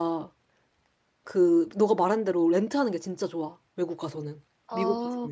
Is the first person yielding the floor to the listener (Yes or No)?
Yes